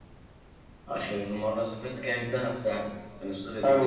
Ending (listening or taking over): taking over